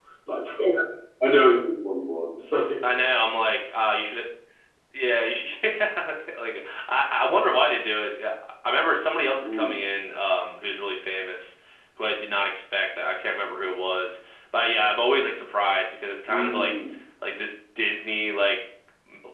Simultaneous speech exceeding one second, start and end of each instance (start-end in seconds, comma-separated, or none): none